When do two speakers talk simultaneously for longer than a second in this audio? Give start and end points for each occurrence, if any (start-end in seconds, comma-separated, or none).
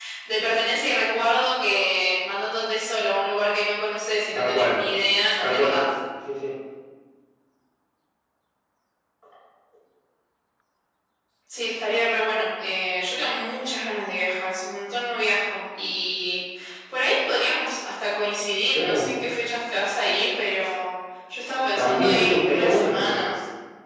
21.8-23.2